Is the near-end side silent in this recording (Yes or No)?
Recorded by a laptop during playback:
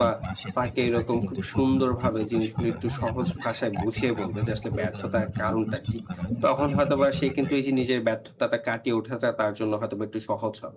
No